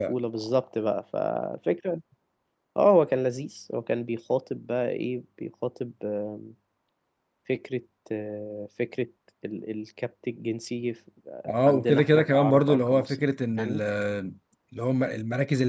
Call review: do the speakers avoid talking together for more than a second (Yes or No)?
No